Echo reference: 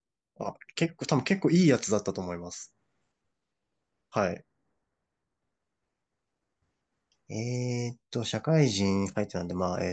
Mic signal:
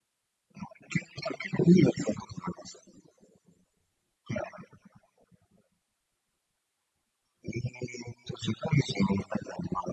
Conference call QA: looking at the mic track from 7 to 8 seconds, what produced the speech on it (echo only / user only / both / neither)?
echo only